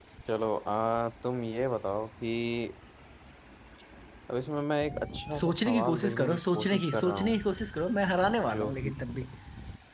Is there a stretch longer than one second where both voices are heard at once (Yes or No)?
Yes